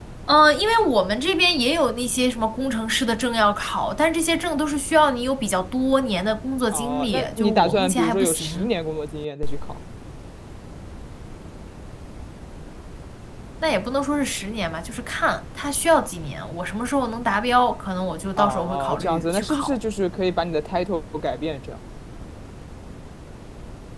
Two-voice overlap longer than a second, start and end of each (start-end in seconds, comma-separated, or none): 6.7-8.7, 18.4-19.8